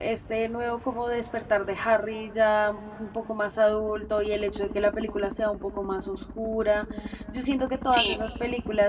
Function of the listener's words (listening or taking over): listening